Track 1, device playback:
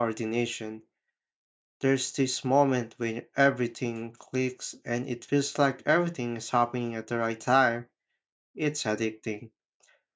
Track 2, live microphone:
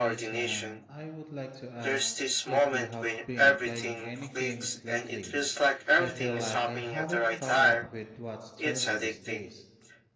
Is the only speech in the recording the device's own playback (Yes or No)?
No